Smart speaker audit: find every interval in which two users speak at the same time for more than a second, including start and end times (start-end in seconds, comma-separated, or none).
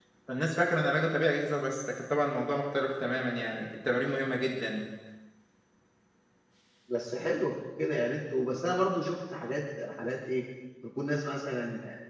none